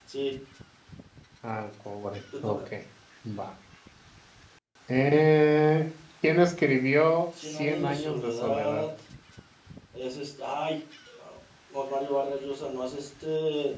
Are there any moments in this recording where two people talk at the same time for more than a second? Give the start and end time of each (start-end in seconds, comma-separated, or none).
7.4-8.9